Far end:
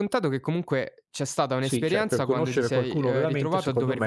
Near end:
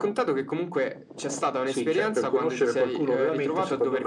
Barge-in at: none

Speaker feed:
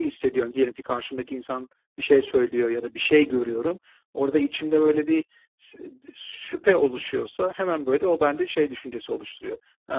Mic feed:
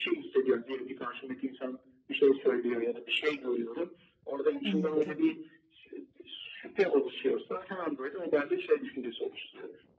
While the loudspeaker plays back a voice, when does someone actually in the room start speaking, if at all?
5 s

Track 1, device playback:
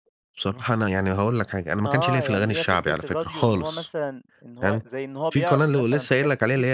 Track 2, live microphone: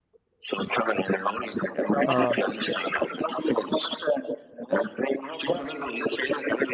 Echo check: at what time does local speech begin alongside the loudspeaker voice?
2 s

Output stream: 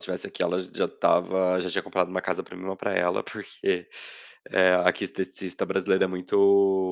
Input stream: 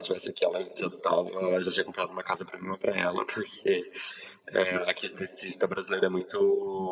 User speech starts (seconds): none

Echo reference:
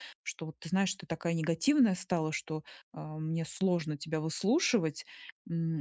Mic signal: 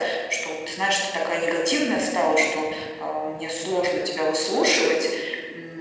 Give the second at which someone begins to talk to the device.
none

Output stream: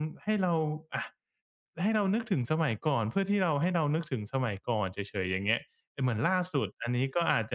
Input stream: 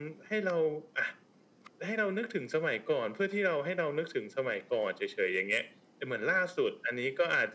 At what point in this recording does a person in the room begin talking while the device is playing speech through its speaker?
none

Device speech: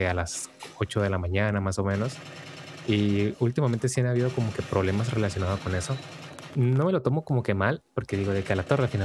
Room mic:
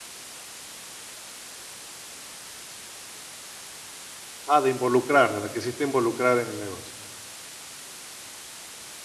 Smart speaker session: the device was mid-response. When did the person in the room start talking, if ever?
4 s

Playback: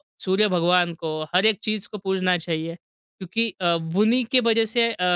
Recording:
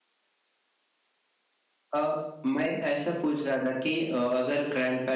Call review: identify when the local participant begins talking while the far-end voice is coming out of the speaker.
2 s

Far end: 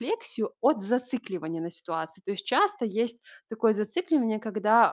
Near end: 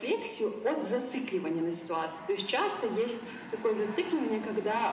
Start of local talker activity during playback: none

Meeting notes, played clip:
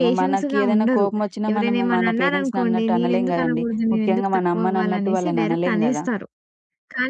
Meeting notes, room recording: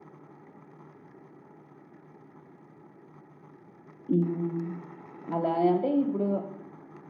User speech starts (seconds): 4 s

